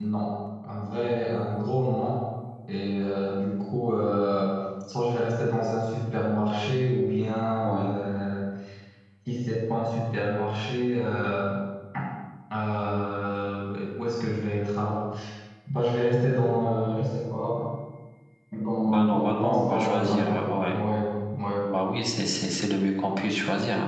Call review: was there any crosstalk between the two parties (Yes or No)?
Yes